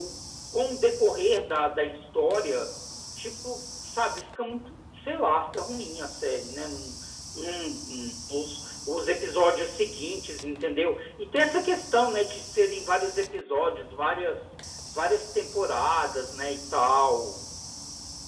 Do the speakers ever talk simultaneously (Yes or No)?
No